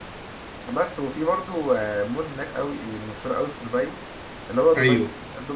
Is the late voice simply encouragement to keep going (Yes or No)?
Yes